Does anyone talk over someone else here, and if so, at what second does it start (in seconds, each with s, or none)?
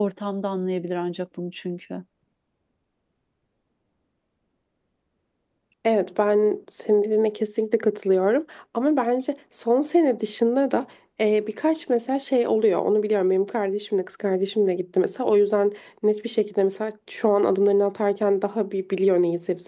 none